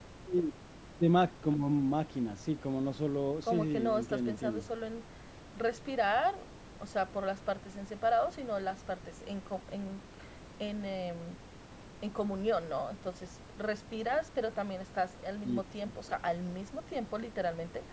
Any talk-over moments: Yes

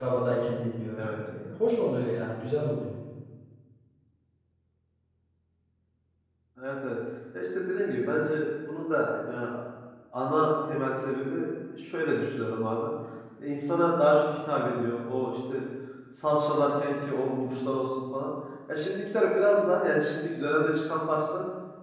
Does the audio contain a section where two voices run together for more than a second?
No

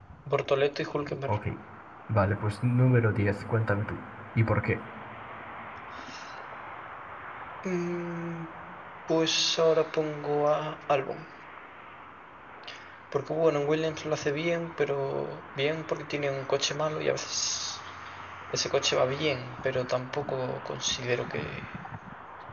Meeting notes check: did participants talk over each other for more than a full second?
No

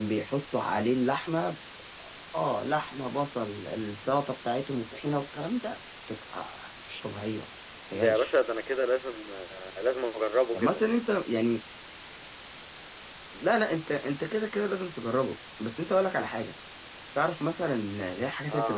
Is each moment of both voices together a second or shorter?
Yes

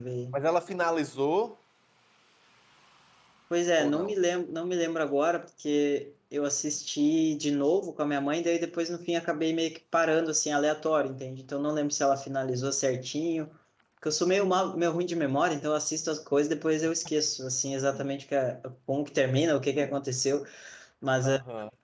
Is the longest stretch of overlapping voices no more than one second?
Yes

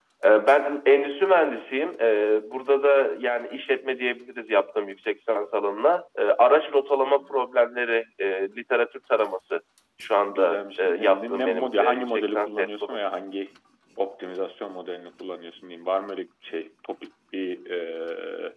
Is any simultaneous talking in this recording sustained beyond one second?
Yes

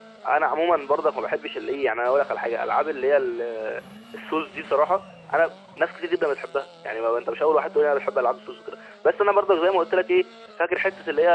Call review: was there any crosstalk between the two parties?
No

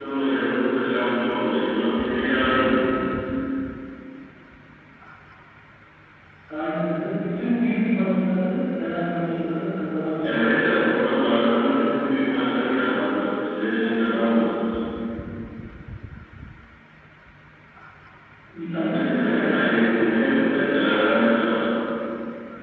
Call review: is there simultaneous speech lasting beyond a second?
Yes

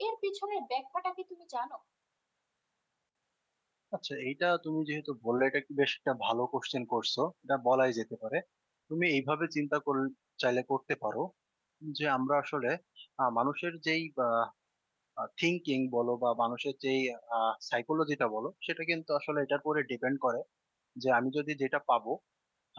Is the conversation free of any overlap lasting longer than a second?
Yes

